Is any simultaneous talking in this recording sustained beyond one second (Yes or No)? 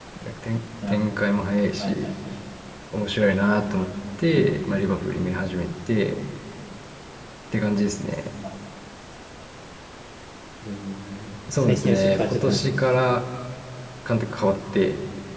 Yes